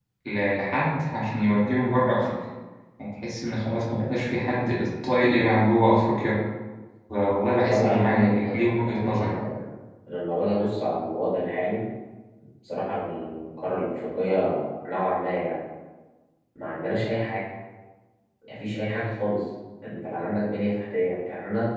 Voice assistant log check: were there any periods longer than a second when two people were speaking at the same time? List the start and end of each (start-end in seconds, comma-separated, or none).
7.5-9.3